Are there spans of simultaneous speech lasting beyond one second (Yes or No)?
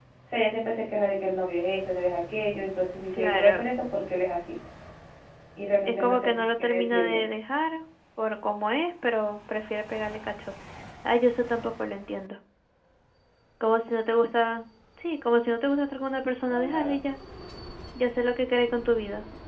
Yes